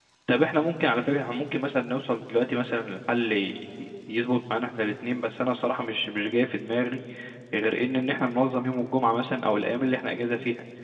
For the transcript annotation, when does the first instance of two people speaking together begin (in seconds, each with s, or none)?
none